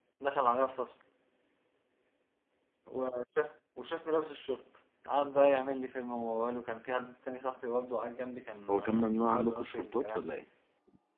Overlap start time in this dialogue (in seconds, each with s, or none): 8.7 s